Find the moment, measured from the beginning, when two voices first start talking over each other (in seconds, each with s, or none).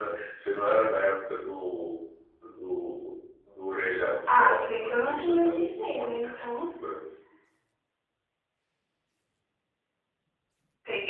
4.3 s